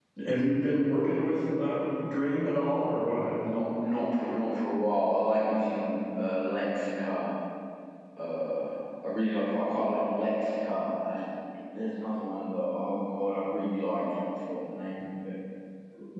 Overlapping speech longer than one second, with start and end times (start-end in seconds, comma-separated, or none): none